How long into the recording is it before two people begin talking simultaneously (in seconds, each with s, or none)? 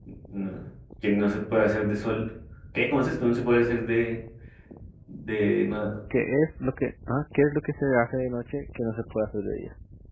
none